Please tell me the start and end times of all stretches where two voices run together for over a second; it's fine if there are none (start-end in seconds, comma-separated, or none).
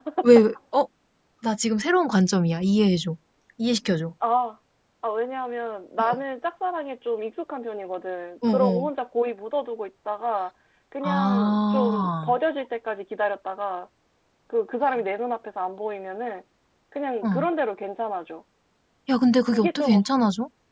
11.0-12.3